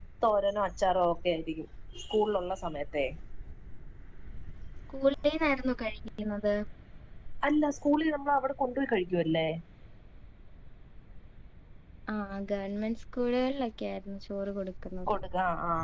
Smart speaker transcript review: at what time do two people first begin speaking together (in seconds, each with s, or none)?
none